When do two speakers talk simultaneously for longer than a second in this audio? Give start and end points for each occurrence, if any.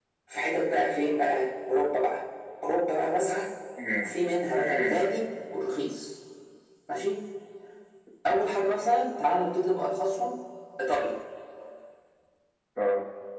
none

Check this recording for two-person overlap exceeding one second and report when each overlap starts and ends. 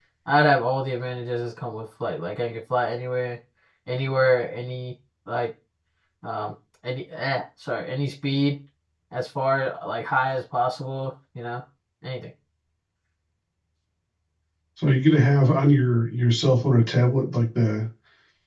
none

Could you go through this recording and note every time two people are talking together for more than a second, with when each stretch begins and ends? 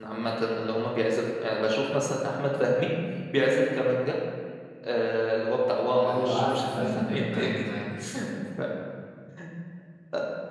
6.0-7.6

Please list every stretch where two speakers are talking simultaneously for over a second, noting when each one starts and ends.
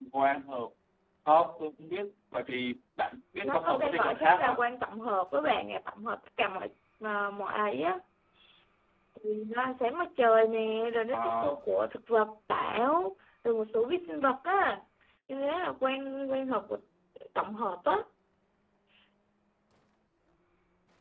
3.4-4.6

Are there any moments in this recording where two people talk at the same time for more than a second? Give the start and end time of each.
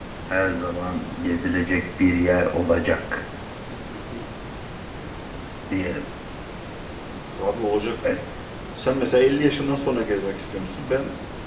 none

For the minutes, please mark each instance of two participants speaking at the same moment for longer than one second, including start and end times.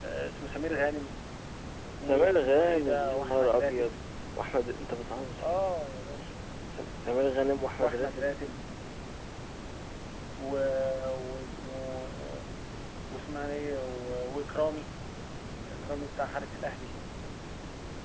2.0-3.9

